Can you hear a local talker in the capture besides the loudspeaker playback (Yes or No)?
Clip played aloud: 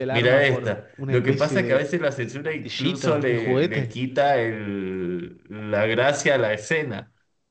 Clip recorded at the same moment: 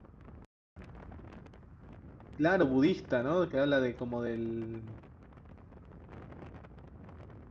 Yes